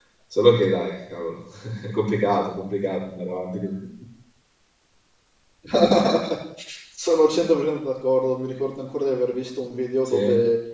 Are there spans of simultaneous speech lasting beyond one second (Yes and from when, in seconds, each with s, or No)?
No